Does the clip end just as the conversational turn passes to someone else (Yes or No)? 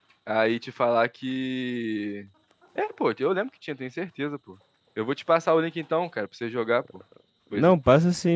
Yes